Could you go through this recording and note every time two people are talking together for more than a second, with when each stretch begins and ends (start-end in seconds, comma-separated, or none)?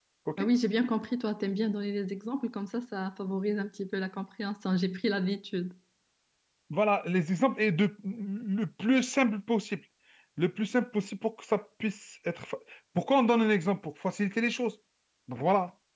none